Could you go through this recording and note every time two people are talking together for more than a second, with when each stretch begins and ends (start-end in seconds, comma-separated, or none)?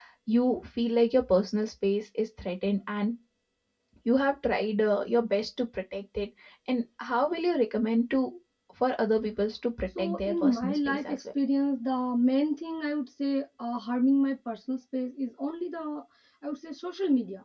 10.0-11.3